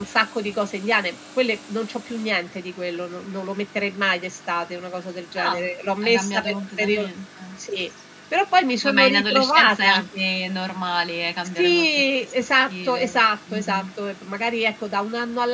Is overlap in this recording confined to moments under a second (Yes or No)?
No